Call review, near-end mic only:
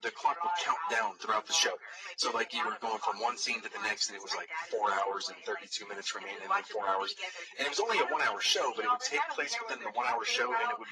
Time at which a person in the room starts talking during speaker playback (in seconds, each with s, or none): none